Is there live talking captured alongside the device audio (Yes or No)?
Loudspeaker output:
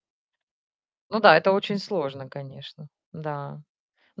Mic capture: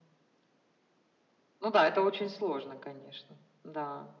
No